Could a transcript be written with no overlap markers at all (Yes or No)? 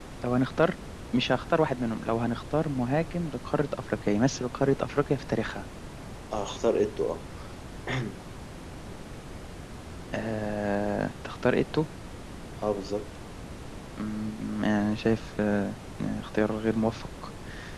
Yes